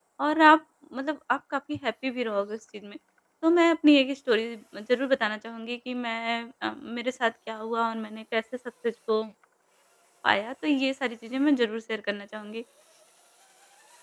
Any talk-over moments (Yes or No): No